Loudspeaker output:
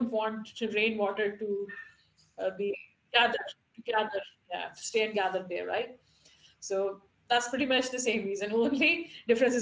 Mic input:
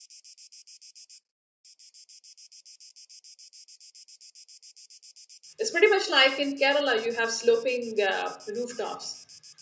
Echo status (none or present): none